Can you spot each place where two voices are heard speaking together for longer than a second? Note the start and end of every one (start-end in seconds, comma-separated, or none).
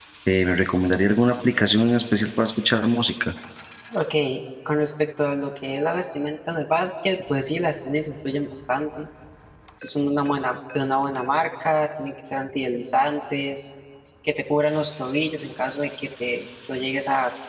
none